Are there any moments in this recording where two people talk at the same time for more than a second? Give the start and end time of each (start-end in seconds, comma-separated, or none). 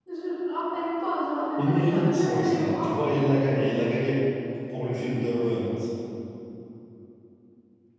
1.6-2.9